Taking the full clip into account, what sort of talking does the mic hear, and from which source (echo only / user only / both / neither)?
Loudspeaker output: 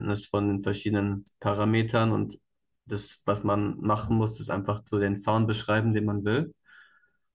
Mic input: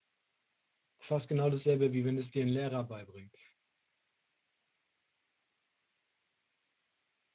user only